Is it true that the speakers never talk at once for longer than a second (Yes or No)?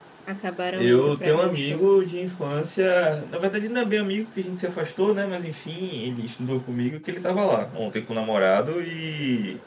No